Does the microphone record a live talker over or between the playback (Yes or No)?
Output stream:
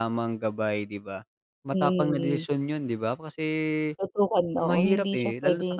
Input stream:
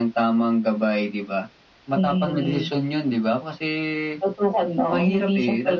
No